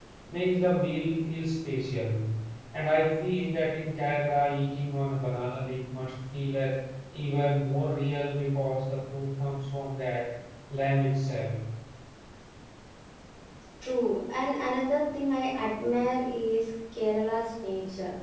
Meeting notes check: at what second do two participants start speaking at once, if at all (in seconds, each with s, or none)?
none